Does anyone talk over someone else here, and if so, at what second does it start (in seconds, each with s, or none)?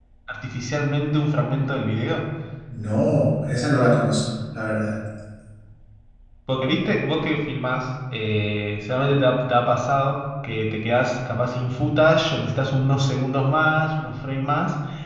none